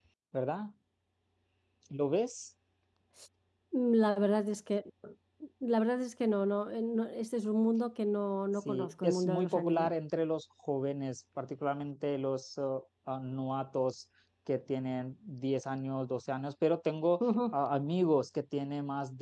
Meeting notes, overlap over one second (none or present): present